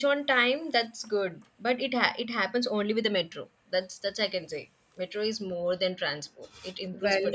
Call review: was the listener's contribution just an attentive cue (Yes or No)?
Yes